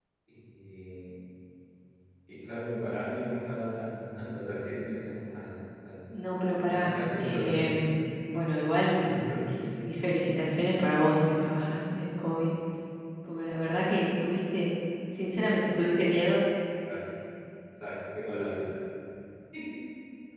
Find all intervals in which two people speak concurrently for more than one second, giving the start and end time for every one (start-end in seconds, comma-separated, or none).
6.7-7.9